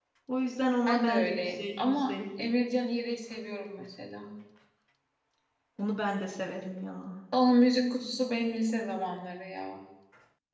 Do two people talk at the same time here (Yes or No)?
Yes